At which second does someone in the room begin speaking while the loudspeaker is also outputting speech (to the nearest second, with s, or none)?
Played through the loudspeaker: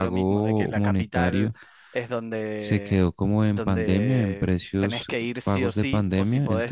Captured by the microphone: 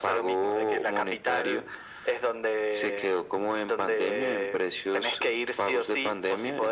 none